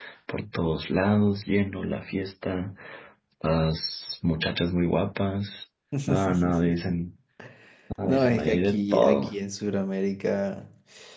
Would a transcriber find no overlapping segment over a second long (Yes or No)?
No